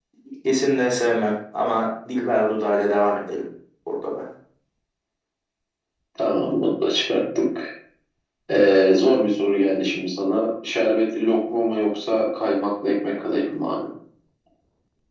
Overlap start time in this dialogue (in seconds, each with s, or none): none